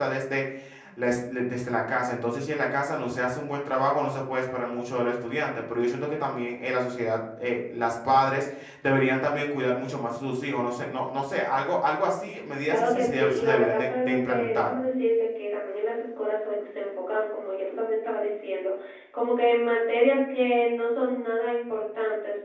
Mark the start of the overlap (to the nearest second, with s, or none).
13 s